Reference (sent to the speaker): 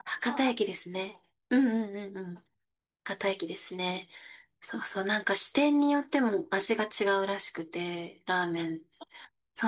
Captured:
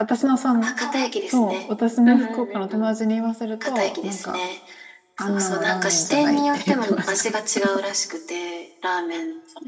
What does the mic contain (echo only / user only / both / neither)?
both